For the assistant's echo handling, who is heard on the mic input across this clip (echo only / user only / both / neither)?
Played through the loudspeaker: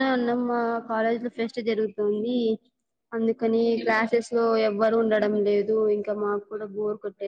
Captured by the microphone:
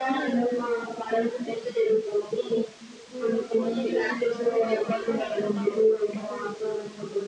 both